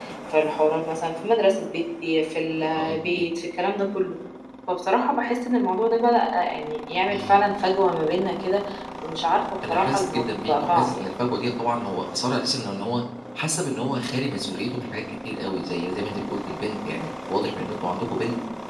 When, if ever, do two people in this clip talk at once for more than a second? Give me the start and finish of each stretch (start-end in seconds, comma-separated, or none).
9.7-11.1